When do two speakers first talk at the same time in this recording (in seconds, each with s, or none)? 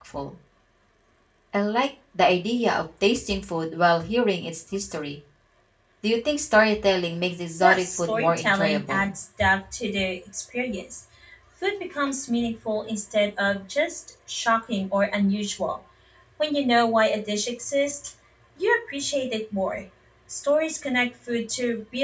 7.6 s